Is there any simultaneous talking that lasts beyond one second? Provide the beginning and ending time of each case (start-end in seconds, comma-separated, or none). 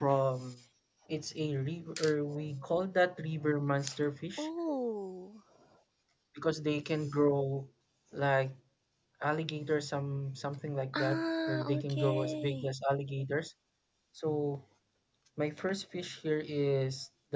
10.9-12.7